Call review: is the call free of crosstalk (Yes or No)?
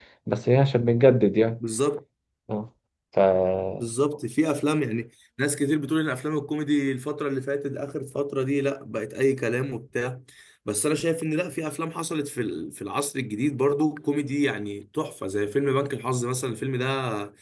Yes